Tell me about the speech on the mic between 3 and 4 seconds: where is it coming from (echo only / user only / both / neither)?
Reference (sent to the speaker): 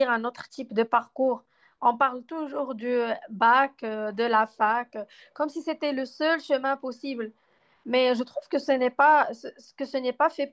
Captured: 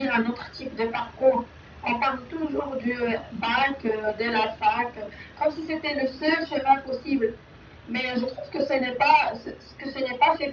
echo only